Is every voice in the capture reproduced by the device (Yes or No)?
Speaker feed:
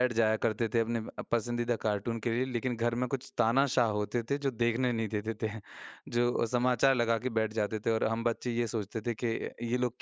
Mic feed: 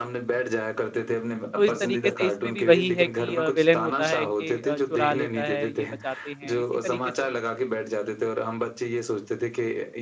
No